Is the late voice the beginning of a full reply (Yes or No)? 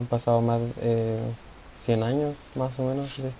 Yes